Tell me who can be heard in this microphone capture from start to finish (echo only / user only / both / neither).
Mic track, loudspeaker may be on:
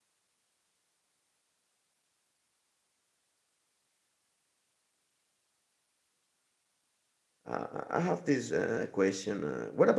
user only